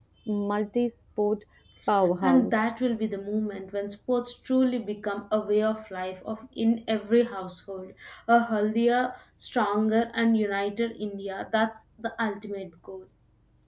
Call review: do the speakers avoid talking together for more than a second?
Yes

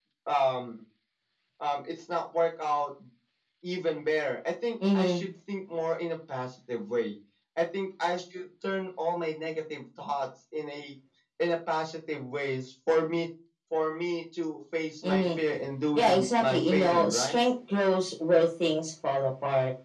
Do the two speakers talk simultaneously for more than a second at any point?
Yes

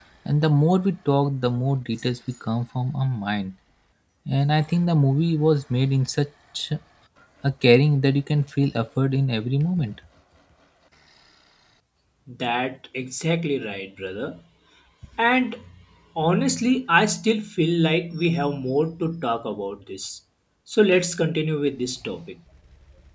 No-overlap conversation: Yes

